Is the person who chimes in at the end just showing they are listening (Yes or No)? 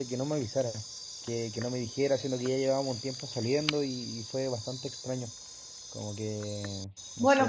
No